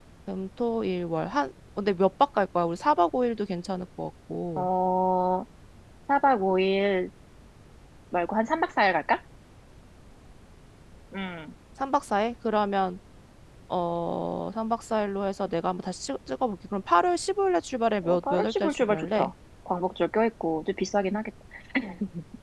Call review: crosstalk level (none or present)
present